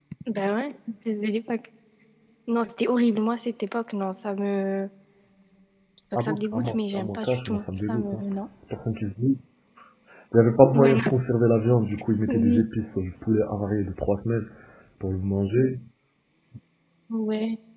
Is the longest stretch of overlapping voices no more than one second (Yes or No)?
No